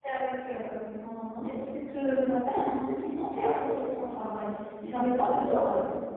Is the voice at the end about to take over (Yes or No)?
No